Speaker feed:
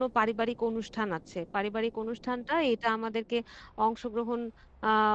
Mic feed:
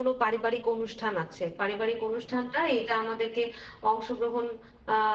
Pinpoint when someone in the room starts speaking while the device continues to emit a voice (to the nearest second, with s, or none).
none